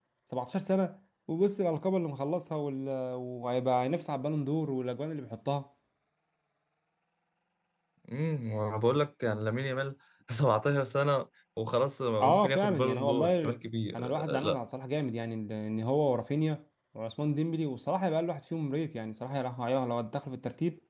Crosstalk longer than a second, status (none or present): present